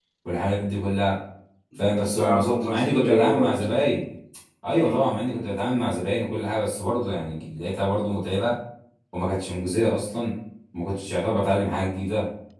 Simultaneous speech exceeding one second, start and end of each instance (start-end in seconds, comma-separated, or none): 2.2-3.5